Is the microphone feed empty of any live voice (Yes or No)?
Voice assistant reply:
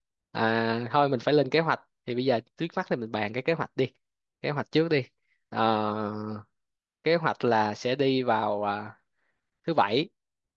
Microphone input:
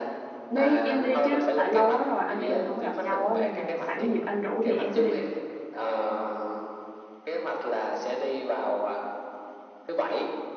No